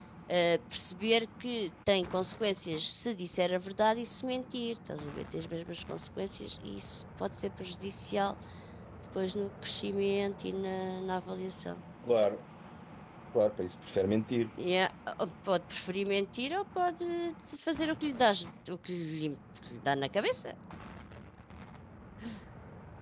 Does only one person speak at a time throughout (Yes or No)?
Yes